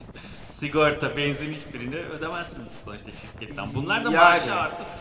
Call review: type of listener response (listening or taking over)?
listening